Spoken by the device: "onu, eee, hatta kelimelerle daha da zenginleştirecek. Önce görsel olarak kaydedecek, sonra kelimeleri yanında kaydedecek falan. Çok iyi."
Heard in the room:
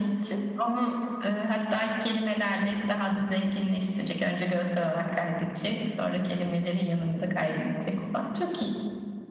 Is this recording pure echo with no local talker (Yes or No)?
Yes